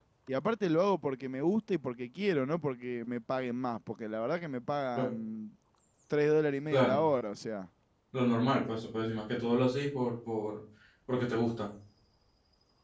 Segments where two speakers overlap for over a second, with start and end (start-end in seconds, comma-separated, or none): none